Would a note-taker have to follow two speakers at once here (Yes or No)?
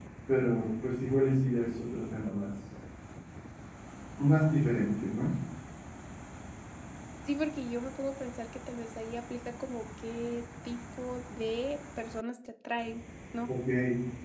No